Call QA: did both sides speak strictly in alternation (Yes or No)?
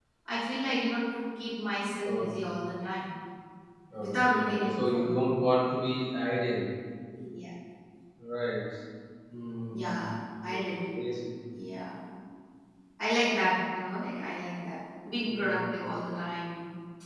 No